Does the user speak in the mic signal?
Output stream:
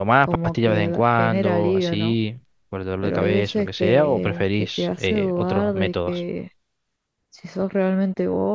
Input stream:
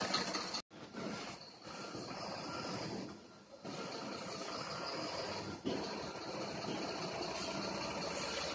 No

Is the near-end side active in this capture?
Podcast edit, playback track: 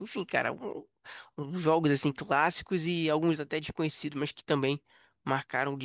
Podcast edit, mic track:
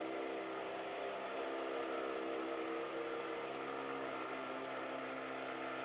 No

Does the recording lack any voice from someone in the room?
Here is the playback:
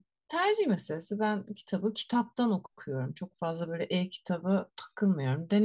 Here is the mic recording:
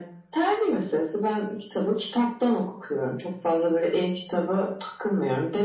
Yes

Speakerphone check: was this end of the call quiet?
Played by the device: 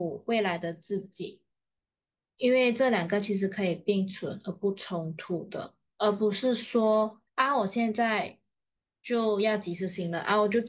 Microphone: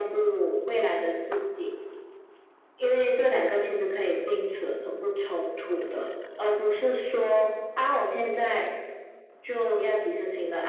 Yes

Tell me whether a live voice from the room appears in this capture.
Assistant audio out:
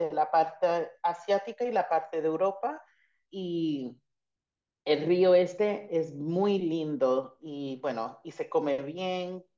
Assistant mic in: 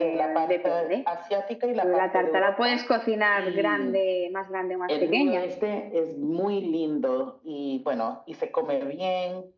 Yes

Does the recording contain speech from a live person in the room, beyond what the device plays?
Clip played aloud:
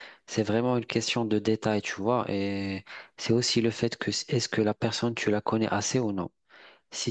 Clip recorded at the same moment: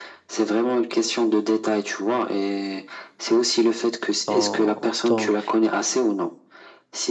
Yes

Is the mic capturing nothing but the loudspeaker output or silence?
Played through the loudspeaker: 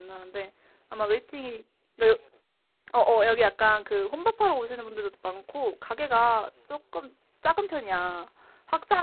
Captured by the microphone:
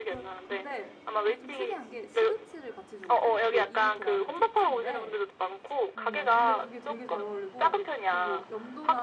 No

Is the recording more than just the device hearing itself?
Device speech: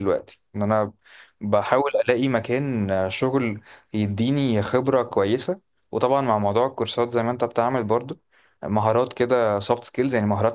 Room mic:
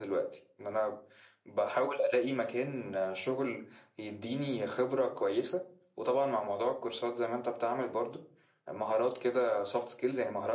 No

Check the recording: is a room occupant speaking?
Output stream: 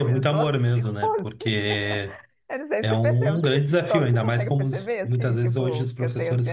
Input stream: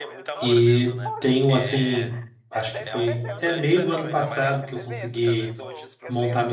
Yes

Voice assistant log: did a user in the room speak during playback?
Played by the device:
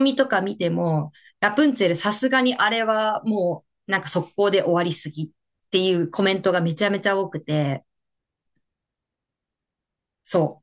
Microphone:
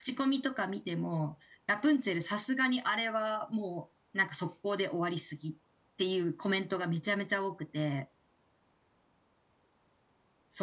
No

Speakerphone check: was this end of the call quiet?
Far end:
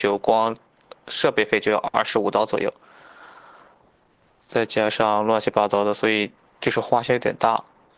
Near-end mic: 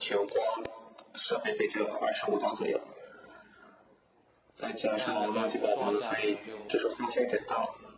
No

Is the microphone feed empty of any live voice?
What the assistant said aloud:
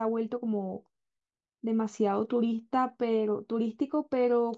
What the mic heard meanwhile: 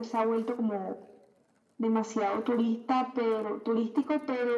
Yes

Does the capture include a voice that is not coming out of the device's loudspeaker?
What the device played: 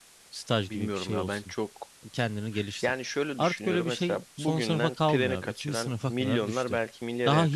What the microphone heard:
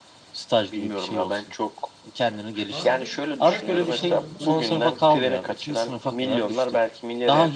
Yes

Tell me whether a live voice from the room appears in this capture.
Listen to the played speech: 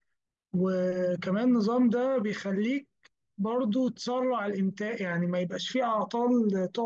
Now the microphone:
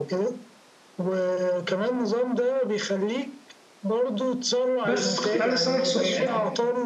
Yes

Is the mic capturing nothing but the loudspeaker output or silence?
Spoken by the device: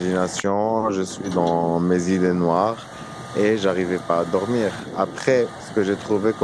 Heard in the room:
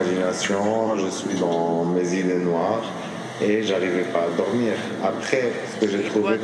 No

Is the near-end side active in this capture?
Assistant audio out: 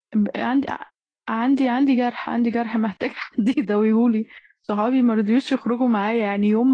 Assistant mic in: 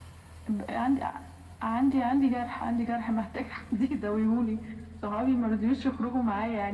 No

